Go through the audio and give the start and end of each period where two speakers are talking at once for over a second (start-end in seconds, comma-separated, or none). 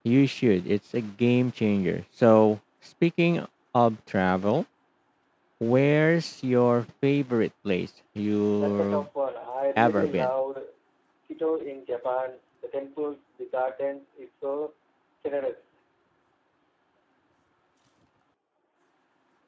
none